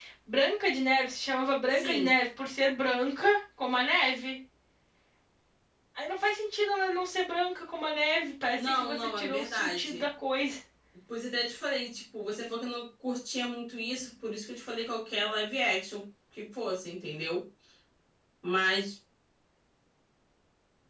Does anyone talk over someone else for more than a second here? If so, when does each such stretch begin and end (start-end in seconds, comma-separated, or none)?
8.6-10.0